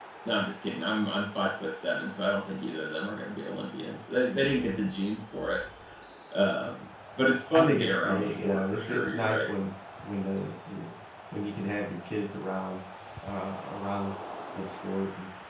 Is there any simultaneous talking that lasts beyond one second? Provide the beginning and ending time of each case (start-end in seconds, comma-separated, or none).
7.5-9.5